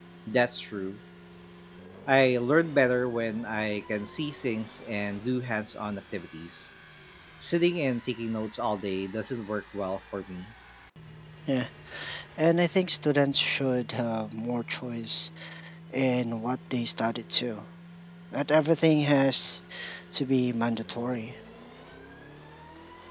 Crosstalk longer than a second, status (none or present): none